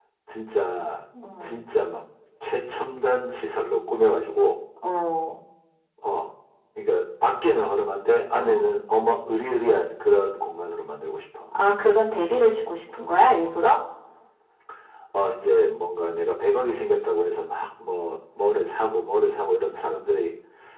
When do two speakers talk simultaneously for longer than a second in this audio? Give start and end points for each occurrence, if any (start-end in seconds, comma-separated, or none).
none